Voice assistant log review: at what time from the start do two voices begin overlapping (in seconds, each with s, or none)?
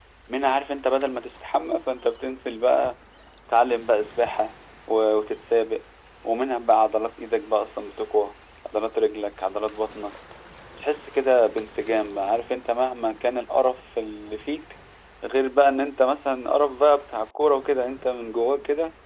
none